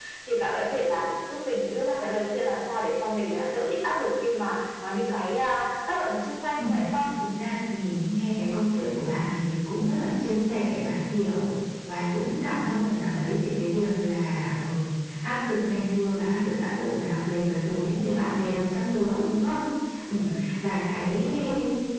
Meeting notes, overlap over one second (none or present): none